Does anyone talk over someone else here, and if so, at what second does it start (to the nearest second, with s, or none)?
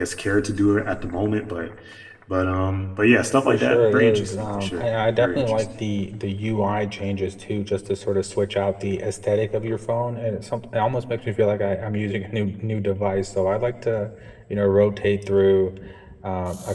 3 s